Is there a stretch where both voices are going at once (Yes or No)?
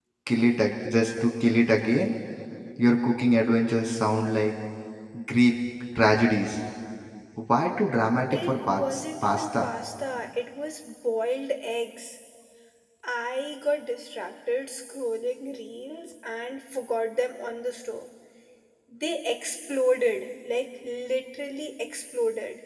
Yes